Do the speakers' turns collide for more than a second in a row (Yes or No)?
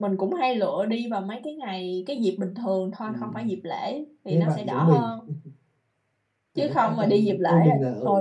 Yes